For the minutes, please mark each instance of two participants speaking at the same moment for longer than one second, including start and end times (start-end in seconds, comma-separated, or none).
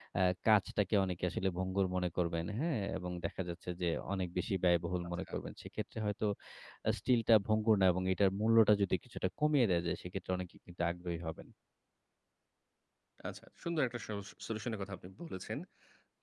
none